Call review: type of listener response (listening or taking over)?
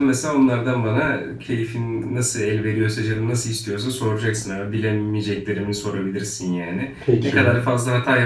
listening